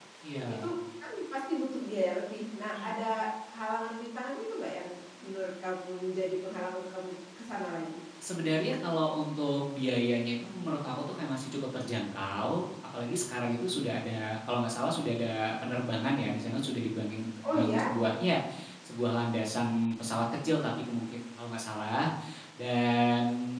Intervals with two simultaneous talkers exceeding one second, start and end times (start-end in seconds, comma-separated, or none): none